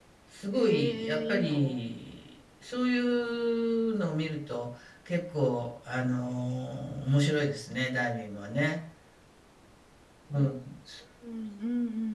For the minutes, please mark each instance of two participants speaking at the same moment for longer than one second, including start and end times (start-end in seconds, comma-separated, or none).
0.5-1.9